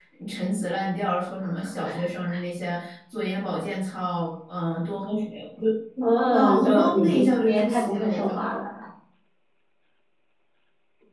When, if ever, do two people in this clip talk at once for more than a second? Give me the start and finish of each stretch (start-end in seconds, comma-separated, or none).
6.0-8.3